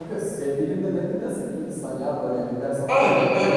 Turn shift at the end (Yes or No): Yes